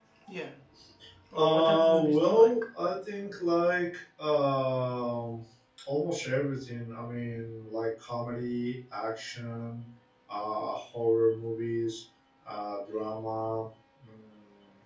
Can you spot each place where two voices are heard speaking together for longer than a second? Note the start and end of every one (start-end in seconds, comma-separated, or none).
1.4-2.6